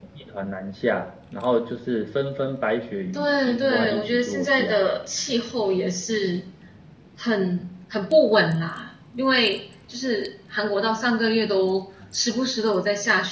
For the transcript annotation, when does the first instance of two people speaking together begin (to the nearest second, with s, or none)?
3 s